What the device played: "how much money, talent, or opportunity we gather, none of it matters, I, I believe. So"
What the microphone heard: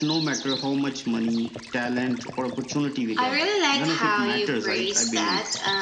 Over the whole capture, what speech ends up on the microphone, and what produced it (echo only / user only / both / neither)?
both